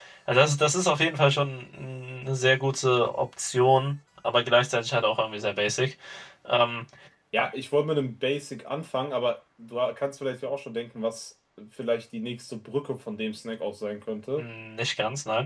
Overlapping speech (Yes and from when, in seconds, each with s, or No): No